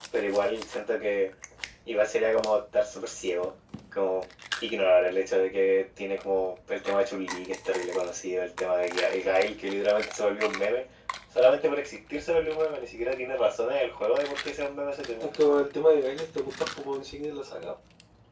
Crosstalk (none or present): none